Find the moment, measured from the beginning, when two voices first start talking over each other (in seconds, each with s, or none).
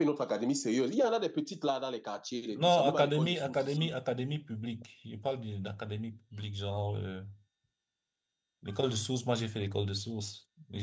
2.5 s